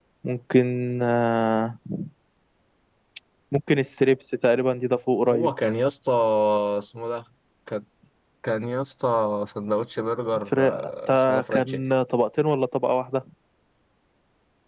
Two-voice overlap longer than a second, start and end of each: 10.5-11.8

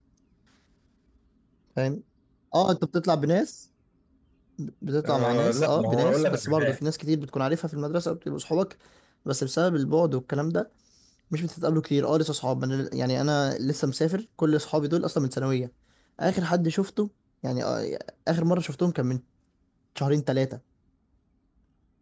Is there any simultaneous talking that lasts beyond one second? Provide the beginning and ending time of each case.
5.0-6.8

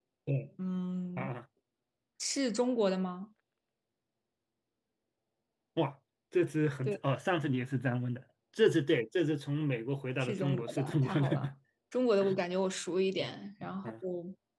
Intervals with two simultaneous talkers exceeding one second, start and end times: 10.2-11.5

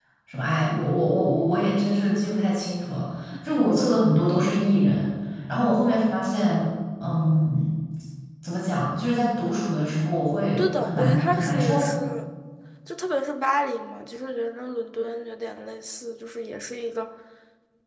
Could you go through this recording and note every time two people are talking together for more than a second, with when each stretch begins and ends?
10.6-11.9

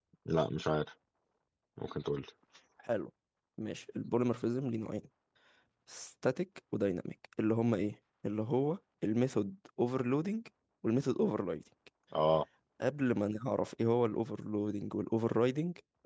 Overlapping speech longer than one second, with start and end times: none

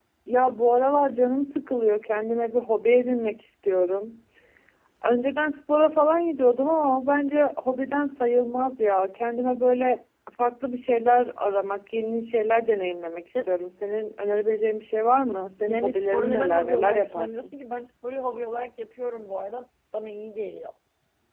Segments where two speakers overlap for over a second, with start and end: 15.7-17.6

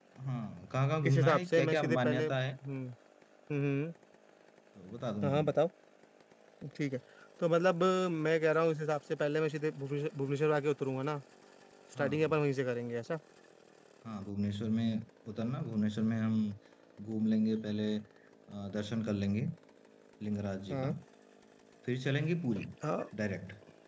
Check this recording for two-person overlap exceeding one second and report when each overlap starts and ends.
1.1-2.4

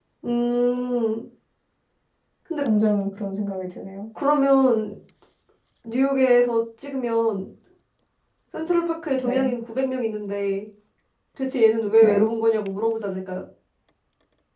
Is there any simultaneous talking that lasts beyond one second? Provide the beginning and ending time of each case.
none

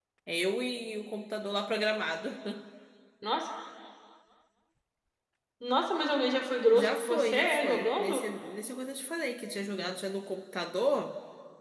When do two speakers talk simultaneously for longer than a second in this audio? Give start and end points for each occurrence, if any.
6.7-8.2

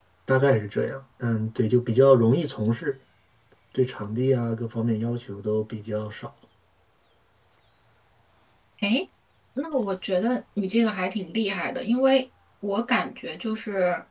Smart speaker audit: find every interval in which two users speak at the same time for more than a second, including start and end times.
none

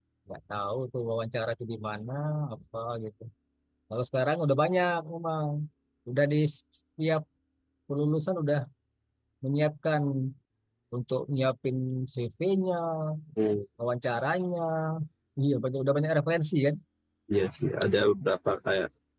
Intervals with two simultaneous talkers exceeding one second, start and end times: none

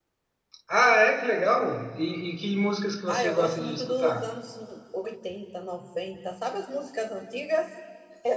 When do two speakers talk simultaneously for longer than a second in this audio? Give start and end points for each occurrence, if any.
3.1-4.3

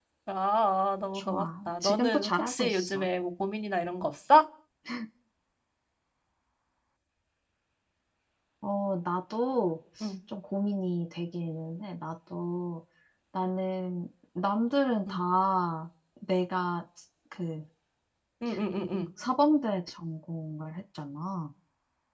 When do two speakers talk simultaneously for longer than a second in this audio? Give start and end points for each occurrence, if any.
1.1-3.1

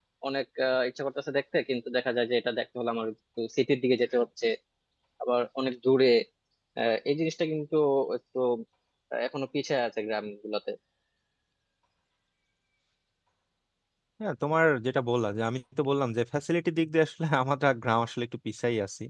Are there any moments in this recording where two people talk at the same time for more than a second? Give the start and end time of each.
none

